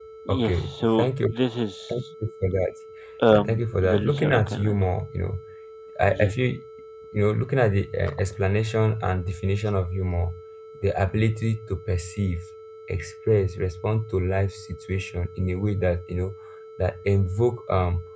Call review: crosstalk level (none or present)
present